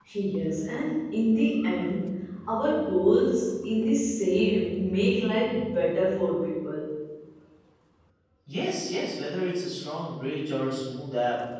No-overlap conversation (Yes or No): Yes